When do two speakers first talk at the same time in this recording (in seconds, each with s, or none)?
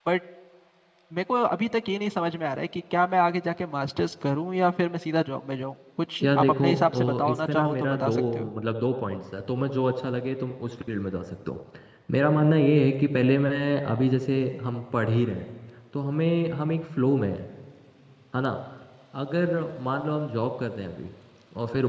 6.2 s